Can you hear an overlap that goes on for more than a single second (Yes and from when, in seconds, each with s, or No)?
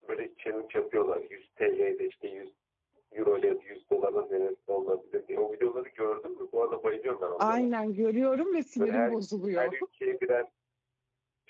No